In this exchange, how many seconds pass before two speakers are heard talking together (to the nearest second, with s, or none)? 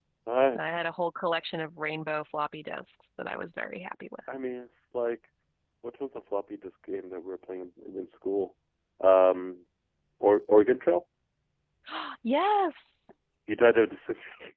none